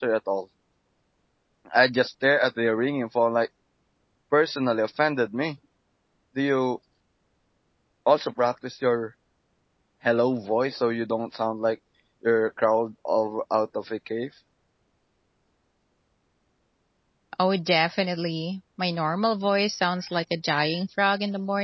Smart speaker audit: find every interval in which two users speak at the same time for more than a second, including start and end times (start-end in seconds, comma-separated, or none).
none